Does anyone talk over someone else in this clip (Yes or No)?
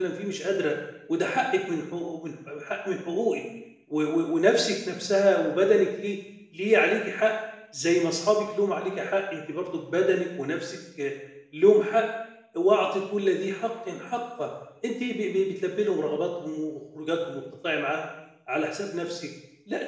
No